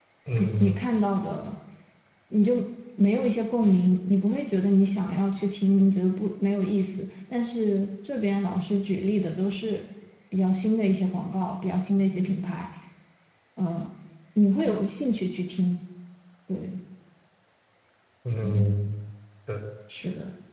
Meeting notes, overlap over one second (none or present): none